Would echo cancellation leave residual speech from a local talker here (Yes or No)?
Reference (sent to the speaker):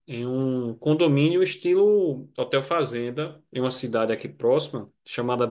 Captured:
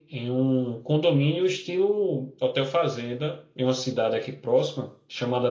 No